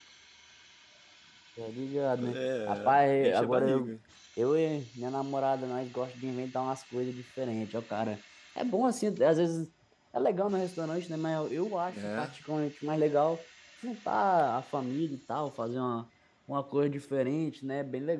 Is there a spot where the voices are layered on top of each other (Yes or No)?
Yes